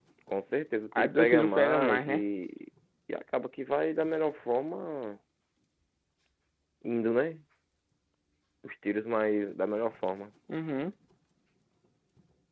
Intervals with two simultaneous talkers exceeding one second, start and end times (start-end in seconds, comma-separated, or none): 1.0-2.2